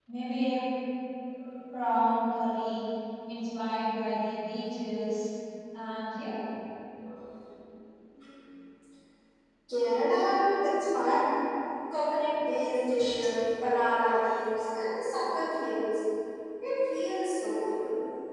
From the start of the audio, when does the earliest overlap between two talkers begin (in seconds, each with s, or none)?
none